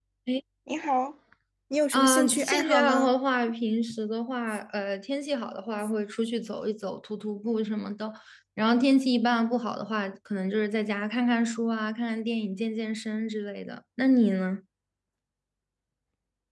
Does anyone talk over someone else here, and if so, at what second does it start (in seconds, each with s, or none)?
1.9 s